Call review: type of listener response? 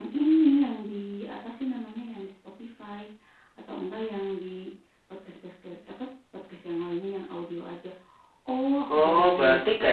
taking over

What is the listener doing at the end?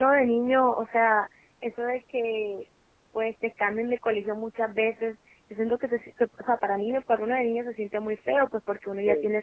listening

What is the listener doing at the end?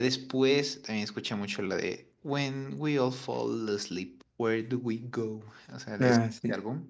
listening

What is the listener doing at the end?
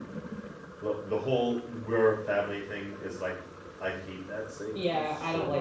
taking over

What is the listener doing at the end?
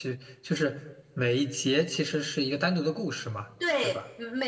taking over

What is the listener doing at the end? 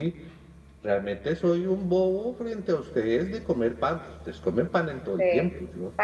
taking over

